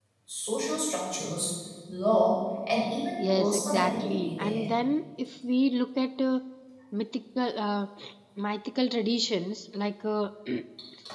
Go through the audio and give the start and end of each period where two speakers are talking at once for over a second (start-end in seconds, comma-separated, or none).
3.2-4.7